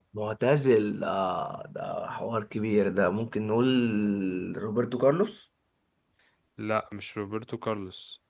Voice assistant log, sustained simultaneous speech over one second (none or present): none